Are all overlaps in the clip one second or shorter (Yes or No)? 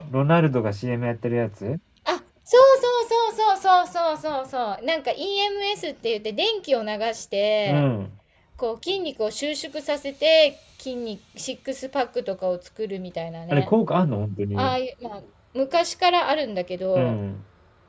Yes